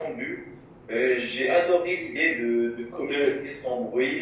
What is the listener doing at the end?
listening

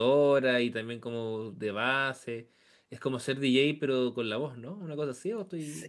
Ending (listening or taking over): taking over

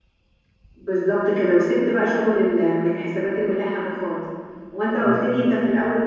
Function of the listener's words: listening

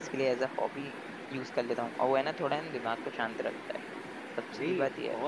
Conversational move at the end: taking over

